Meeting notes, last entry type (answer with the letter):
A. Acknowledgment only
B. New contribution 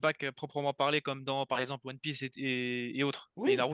B